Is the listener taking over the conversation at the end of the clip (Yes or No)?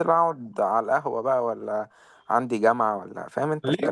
Yes